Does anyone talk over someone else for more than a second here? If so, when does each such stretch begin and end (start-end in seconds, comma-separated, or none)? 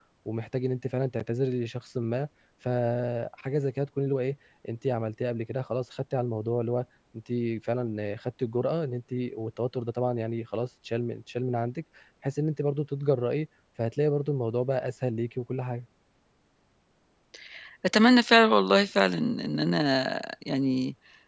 none